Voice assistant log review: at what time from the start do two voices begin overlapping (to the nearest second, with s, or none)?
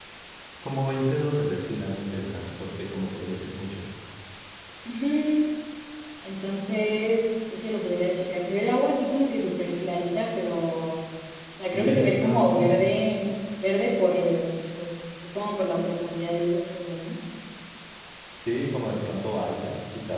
12 s